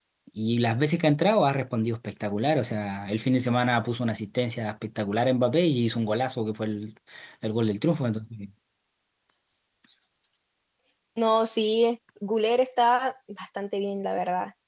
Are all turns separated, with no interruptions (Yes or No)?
Yes